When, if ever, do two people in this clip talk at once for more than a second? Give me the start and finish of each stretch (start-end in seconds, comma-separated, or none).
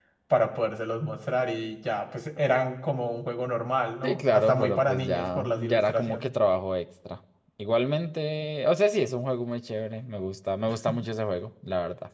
4.0-6.3